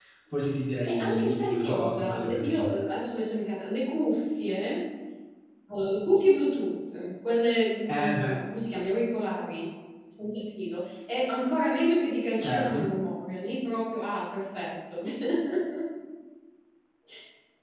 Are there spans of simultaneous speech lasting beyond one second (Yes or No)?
Yes